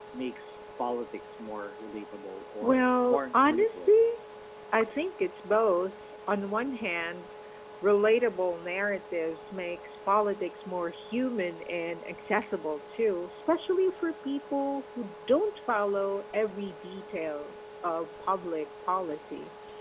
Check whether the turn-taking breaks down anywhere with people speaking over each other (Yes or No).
Yes